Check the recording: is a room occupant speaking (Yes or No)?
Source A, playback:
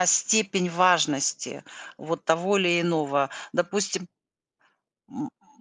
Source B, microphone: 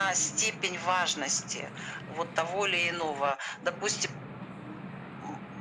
No